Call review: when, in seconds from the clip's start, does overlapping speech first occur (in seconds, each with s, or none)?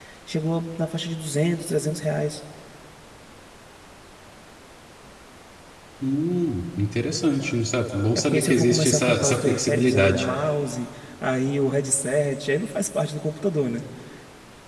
8.2 s